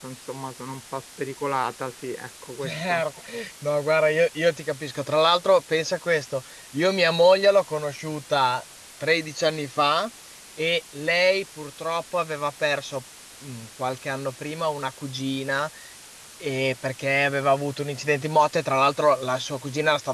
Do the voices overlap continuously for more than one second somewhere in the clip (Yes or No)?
No